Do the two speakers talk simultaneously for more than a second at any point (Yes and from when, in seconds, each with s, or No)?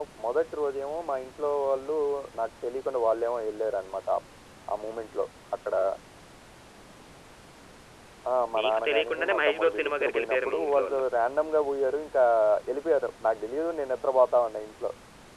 Yes, from 8.6 s